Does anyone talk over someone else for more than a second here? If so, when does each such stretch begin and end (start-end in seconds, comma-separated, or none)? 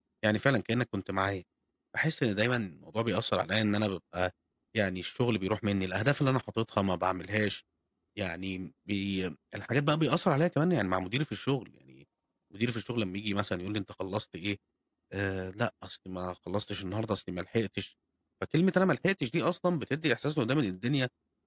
none